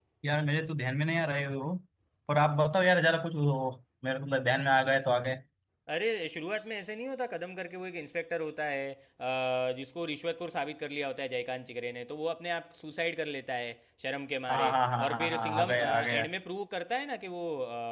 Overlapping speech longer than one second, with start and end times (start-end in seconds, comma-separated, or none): 14.5-16.2